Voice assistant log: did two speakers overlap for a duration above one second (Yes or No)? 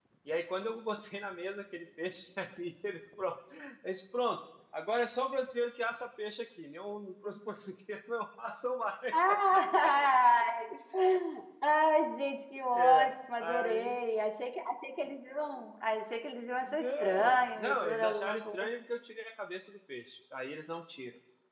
Yes